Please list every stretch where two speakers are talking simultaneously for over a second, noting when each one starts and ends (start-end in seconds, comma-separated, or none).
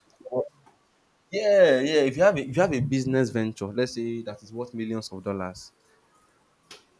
none